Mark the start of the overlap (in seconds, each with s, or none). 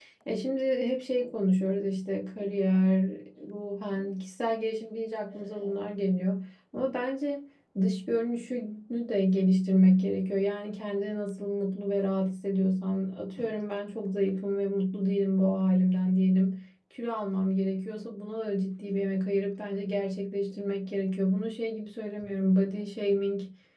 none